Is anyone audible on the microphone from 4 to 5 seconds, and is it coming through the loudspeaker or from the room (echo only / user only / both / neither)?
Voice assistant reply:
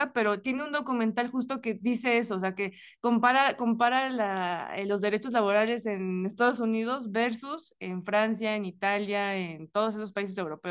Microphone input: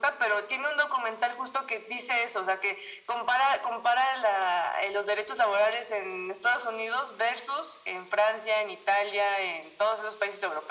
echo only